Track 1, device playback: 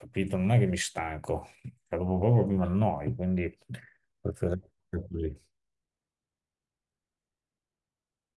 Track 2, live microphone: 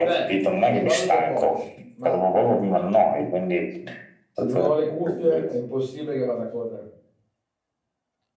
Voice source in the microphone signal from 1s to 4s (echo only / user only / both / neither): both